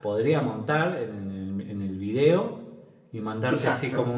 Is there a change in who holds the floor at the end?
No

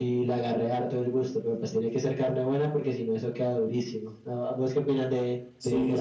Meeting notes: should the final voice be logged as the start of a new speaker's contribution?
Yes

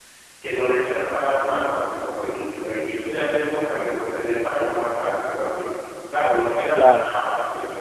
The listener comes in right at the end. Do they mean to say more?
No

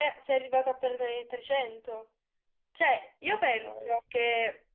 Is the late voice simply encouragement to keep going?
Yes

